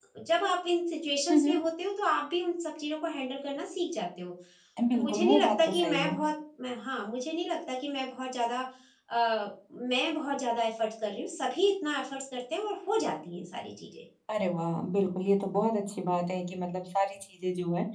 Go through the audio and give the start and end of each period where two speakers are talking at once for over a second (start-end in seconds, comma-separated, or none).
4.9-6.2